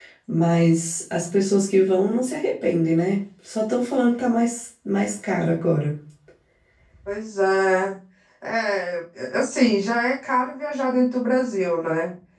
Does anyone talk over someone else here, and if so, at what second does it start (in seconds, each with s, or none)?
none